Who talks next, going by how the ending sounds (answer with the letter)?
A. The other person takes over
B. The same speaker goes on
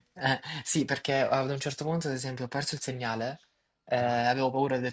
B